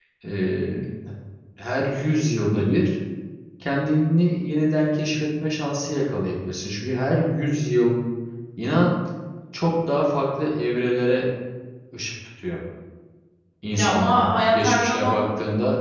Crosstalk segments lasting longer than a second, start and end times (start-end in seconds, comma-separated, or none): 13.8-15.2